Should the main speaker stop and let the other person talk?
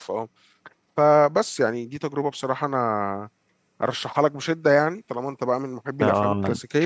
Yes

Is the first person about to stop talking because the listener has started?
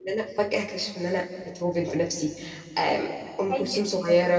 No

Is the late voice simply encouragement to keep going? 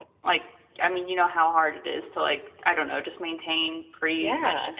Yes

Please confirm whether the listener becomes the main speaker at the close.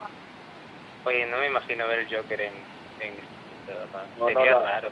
Yes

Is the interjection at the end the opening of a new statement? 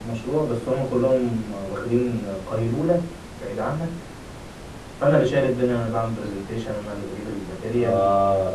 Yes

